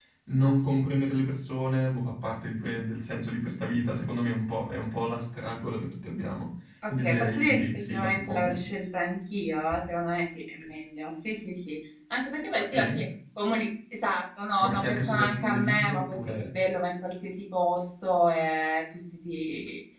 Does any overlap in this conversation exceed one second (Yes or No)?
Yes